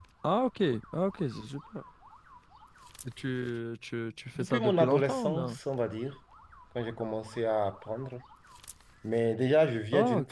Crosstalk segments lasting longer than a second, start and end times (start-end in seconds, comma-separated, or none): 4.3-5.6